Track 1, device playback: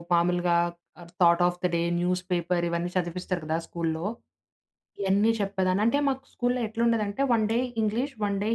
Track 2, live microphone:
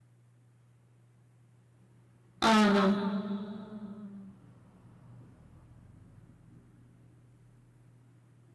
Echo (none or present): none